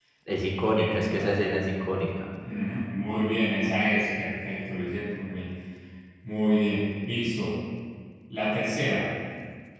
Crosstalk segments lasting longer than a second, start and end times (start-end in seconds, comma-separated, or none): none